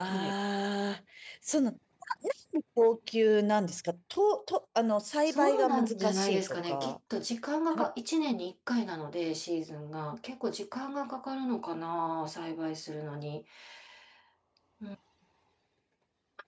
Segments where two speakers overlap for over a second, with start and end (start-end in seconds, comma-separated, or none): 5.3-7.0